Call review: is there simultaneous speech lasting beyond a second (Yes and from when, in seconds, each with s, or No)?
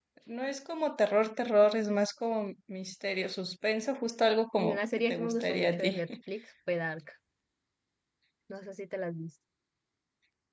Yes, from 4.6 s